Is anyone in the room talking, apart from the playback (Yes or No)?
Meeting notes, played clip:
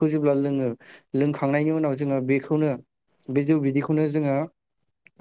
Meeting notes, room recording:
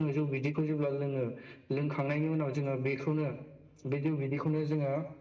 No